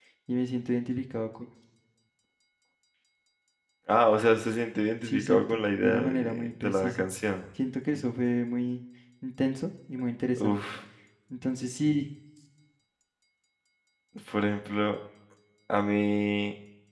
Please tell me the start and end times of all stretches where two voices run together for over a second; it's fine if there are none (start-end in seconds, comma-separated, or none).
5.0-7.1